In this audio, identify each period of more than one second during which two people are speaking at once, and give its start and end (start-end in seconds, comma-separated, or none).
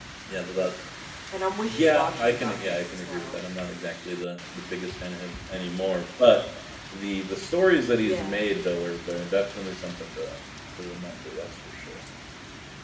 1.6-3.4